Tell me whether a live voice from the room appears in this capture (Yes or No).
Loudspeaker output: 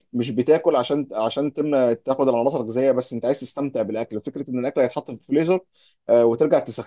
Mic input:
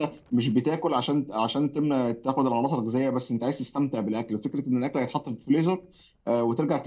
No